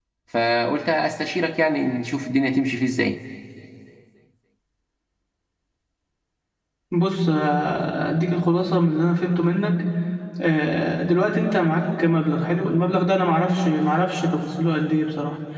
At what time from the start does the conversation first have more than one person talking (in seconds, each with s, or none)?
none